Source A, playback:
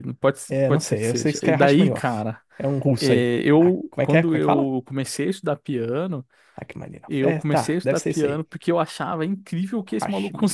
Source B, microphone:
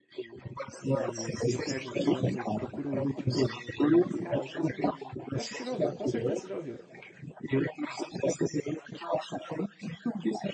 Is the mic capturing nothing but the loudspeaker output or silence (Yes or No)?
No